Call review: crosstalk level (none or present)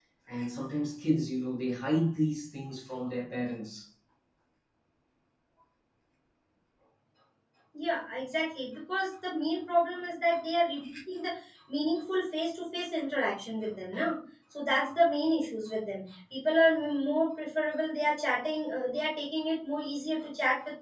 none